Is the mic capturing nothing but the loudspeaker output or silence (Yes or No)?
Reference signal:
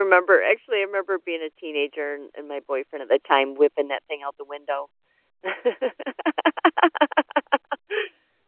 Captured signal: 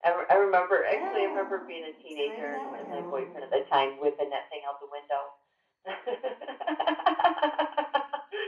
No